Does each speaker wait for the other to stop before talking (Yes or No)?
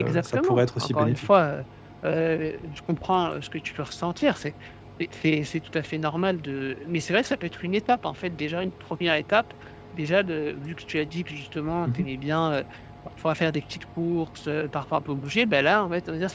No